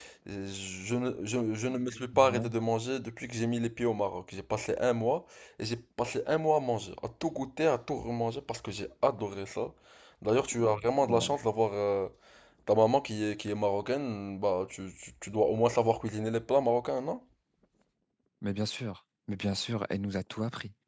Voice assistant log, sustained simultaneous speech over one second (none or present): none